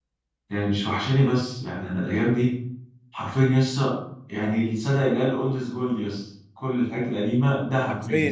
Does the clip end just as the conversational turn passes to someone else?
Yes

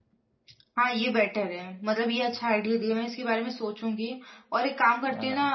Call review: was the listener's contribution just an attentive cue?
Yes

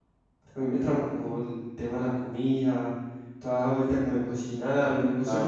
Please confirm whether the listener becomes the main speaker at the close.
Yes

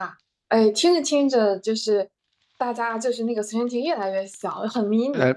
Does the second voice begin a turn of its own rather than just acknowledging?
Yes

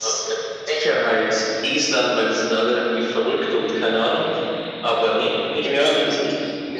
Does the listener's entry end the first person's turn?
Yes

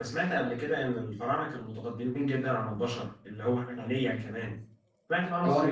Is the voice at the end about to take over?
No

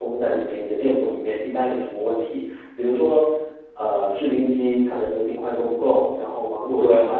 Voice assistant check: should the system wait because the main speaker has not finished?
Yes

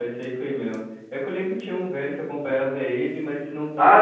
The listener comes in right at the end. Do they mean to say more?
Yes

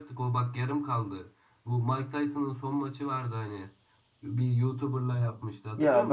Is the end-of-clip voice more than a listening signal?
Yes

